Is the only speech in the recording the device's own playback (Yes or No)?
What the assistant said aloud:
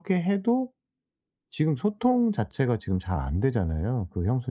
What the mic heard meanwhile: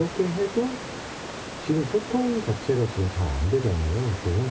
Yes